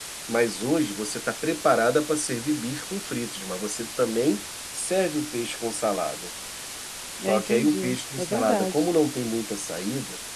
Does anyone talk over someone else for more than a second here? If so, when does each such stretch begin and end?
7.3-8.8

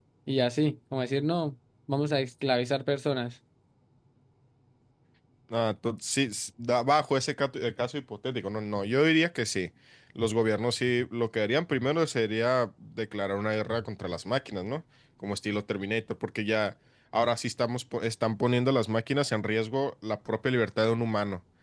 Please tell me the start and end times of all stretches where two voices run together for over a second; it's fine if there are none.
none

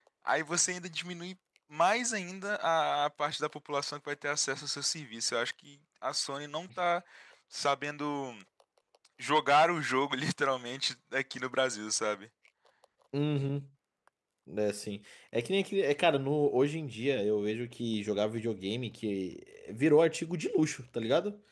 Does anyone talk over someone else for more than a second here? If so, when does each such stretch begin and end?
none

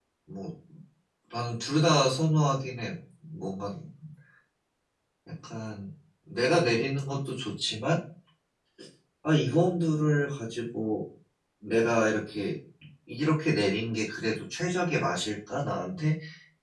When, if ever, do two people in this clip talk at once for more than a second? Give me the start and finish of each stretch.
none

